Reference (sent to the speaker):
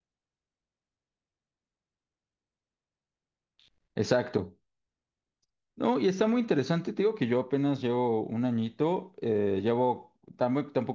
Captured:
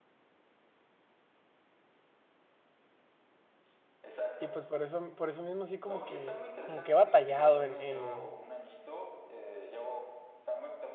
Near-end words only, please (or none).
Y pues por eso, por eso mismo así como que, como que he batallado en, en,